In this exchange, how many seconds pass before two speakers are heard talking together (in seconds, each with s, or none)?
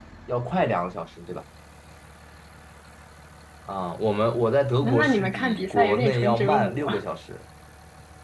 4.8 s